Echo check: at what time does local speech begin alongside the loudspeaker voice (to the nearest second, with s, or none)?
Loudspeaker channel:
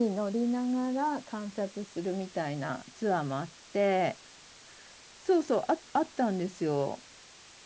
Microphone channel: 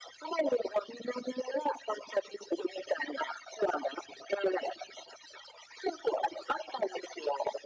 none